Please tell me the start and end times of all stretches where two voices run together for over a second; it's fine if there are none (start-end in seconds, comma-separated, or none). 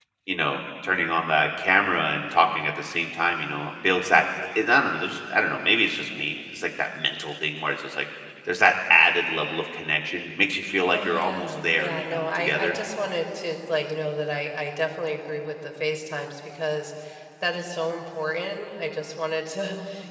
10.9-12.8